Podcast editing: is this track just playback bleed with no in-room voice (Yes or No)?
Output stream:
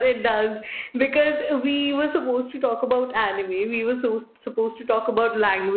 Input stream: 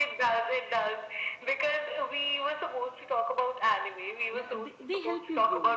No